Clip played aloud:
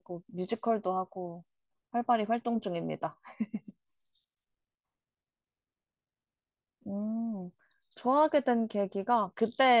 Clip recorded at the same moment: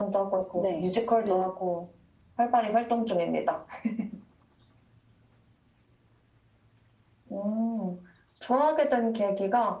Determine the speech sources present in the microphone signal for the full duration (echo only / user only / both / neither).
both